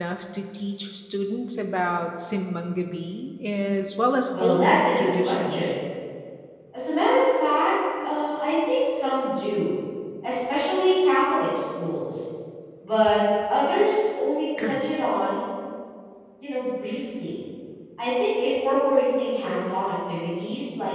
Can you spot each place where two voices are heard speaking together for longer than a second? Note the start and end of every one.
4.4-5.7

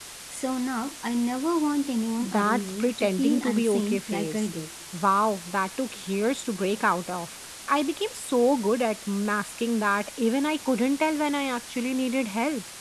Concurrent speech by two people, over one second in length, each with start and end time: 2.2-4.5

